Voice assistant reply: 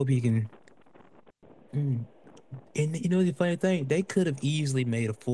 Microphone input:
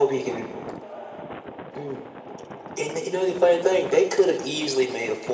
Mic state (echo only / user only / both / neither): echo only